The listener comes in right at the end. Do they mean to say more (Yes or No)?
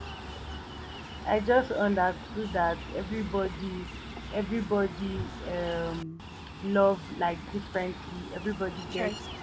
No